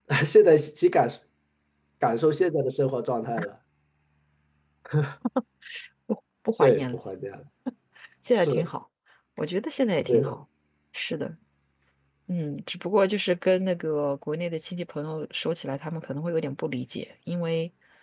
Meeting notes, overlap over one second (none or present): none